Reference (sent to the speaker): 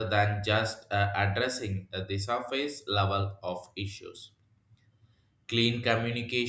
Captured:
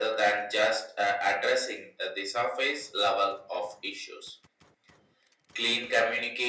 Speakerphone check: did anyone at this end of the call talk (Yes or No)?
No